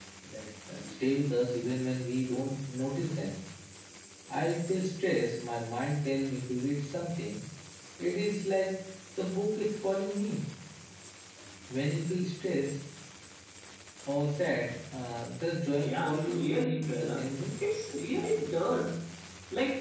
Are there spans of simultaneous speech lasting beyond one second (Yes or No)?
Yes